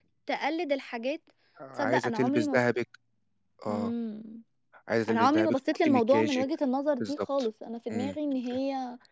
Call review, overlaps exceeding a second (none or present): present